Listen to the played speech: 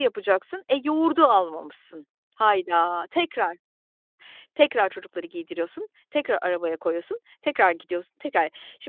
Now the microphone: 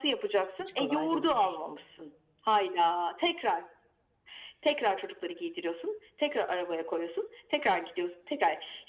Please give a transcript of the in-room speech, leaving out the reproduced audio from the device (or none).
Hiç kolay değildir.